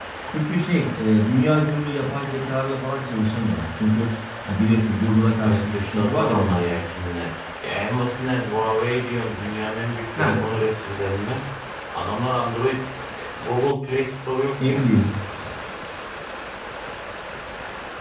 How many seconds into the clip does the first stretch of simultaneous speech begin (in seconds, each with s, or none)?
5.4 s